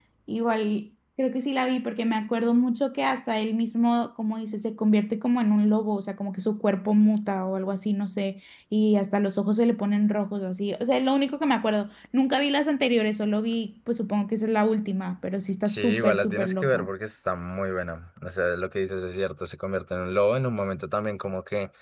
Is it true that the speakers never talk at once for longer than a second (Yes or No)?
No